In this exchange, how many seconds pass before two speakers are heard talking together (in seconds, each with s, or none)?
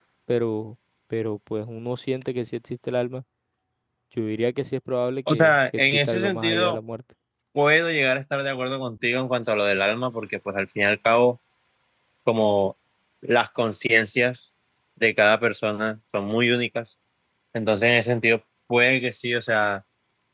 5.3 s